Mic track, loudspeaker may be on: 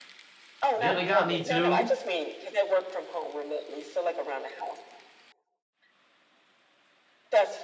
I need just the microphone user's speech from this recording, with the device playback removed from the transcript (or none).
Yeah, they got me too.